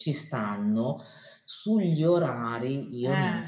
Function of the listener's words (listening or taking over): listening